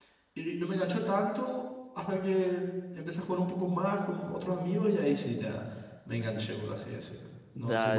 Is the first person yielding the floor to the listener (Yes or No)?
Yes